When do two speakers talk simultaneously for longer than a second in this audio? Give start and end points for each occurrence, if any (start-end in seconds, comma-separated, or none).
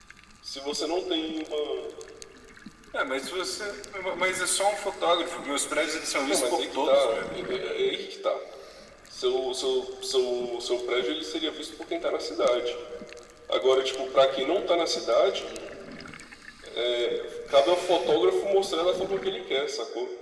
6.3-7.6